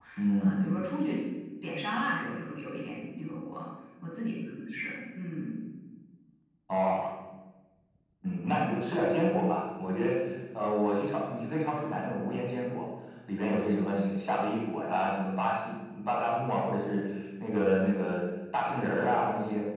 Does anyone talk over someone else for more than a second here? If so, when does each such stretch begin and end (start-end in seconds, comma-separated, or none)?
none